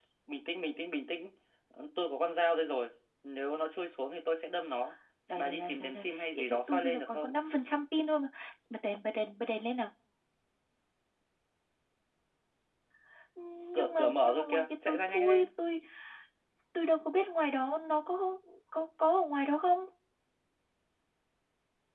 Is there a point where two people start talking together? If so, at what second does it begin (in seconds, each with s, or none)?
5.3 s